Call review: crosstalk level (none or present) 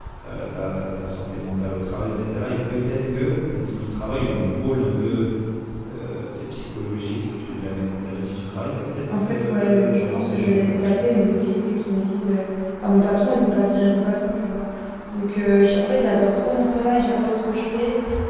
present